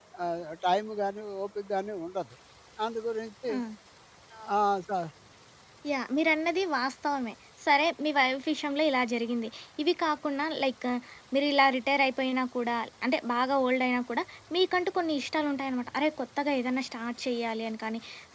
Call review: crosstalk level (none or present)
none